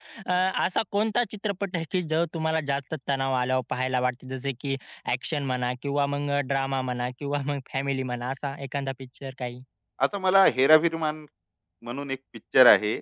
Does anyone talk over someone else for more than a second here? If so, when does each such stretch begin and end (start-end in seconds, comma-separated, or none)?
none